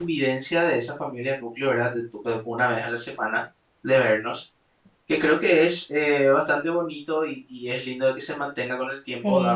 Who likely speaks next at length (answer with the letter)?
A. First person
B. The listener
B